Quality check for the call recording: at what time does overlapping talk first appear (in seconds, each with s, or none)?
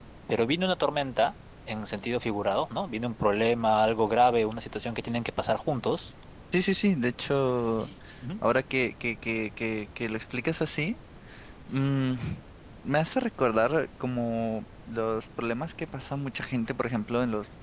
none